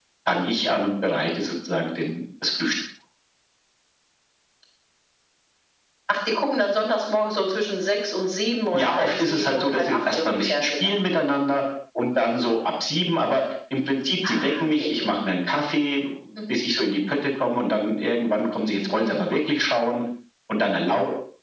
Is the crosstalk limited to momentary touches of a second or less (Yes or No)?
No